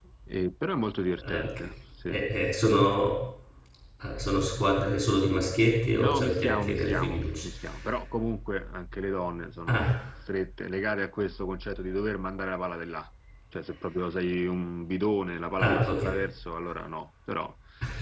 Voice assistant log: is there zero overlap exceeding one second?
No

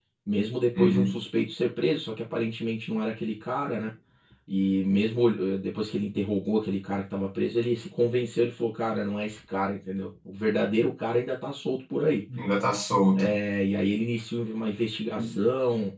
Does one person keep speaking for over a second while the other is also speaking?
No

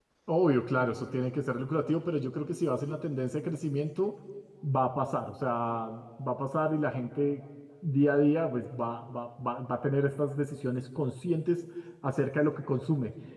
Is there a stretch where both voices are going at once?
No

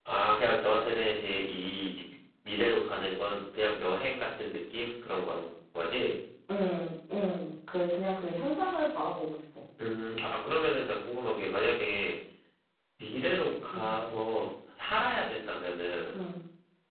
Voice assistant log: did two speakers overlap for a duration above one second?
No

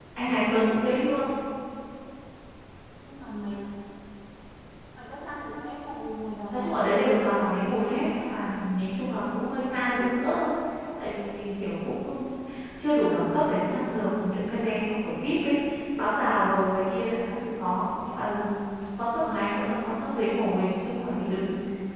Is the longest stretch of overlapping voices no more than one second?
No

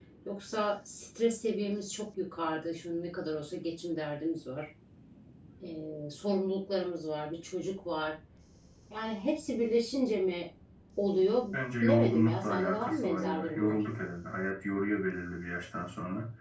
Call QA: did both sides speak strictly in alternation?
No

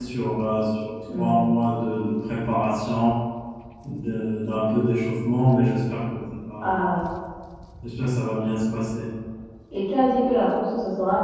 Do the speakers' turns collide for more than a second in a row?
No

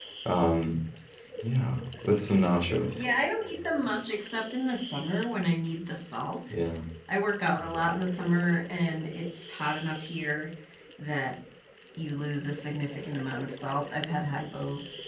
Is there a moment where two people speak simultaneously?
No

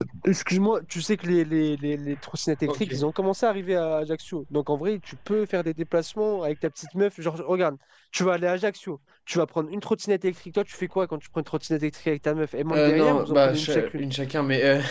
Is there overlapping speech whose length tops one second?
Yes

